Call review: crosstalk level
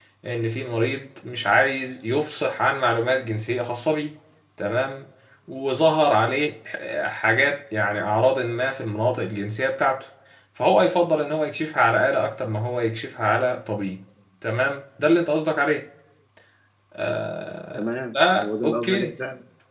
present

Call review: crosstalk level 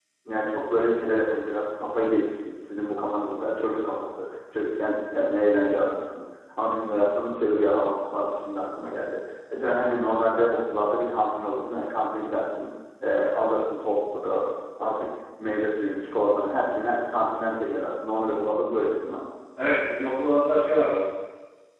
none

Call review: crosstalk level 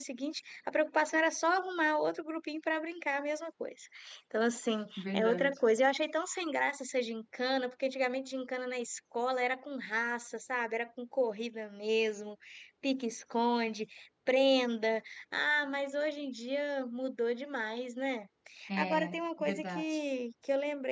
present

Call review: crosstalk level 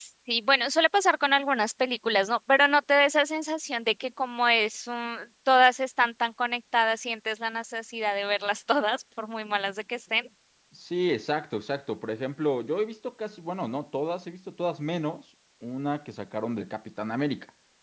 none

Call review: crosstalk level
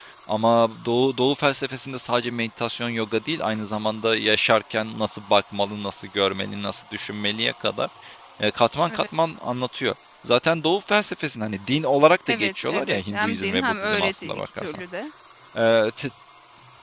present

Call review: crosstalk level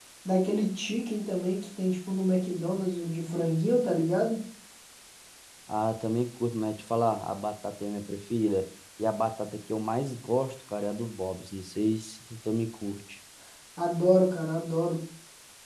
none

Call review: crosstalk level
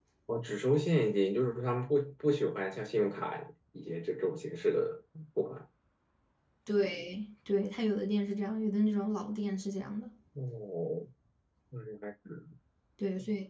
none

